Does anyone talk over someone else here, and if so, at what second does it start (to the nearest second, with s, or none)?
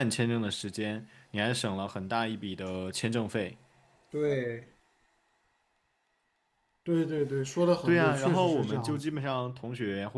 8 s